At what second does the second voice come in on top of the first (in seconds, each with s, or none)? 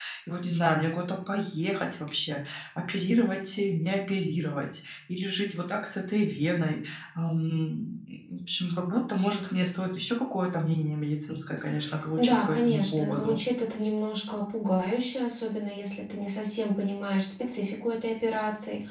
12.2 s